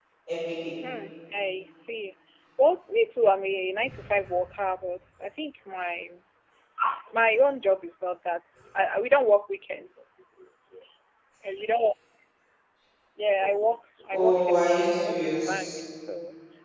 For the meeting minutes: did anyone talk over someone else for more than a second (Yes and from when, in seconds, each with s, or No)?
Yes, from 14.1 s